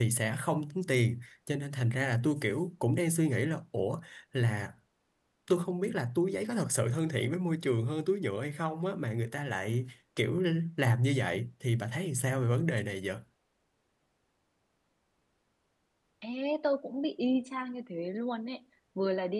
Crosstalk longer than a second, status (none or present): none